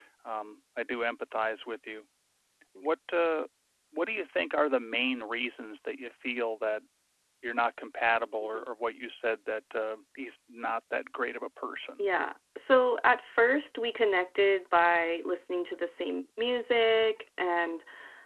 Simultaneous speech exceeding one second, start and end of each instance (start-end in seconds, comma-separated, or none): none